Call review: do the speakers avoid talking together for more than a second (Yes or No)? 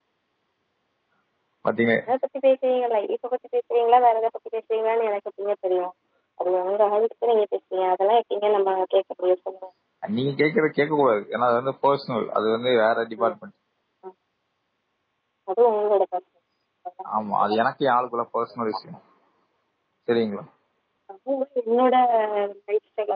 Yes